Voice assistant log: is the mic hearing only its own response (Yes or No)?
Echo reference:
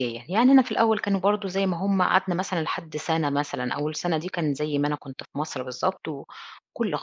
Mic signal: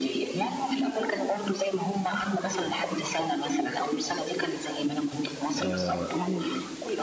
No